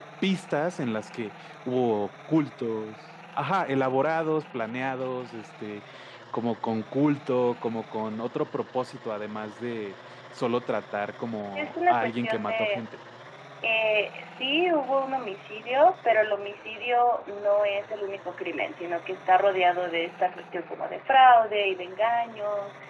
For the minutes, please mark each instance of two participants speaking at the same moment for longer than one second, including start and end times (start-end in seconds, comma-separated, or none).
11.6-12.8